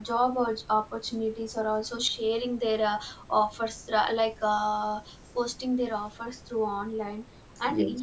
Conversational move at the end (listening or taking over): listening